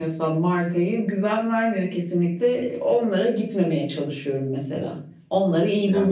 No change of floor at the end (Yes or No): No